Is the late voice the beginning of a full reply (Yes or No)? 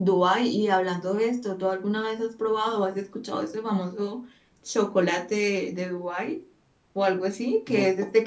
No